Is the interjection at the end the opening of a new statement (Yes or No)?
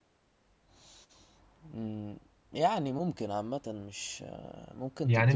Yes